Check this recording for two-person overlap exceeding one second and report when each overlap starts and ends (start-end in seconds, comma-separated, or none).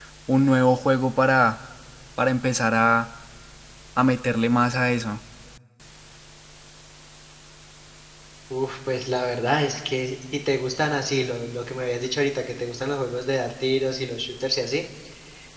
none